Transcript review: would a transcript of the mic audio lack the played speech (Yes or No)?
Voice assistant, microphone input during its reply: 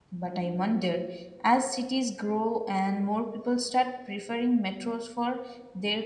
Yes